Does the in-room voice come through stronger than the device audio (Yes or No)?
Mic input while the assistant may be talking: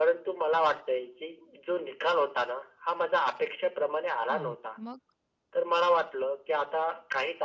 No